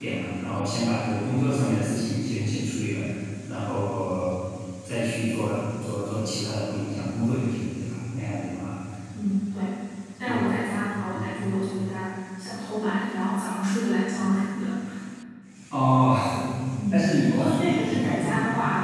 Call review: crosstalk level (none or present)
present